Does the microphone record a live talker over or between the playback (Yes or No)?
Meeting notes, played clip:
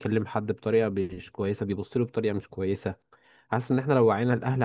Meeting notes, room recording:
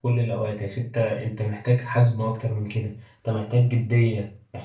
Yes